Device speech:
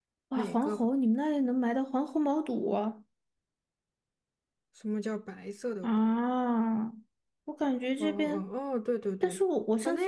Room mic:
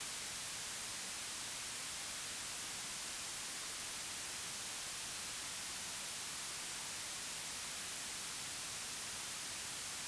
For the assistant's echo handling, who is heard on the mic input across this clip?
neither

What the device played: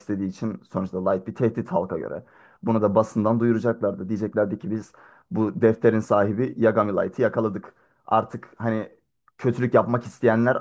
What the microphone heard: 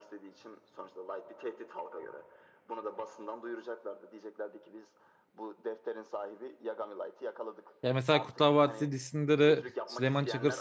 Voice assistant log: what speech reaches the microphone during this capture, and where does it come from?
both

